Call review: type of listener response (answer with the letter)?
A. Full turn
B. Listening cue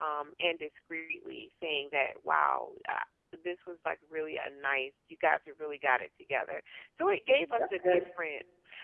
B